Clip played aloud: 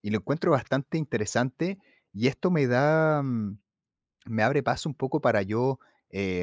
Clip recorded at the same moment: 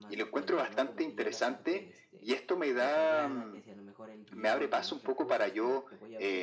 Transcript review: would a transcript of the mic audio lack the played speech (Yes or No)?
No